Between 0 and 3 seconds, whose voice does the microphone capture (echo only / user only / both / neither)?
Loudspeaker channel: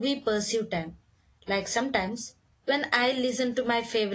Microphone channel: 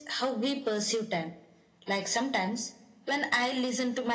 echo only